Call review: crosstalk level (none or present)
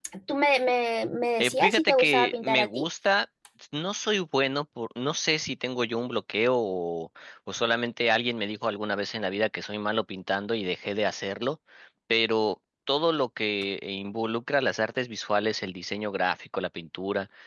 present